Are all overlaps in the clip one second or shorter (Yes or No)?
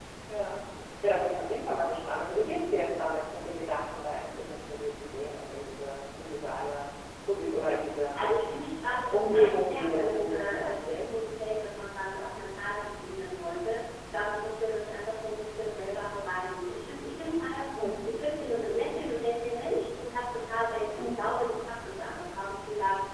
No